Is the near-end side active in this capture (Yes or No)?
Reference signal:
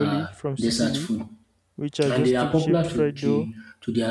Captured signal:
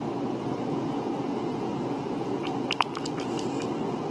No